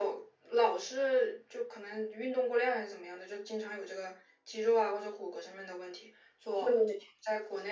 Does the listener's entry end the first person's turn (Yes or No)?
No